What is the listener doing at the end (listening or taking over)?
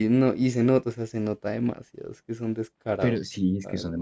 taking over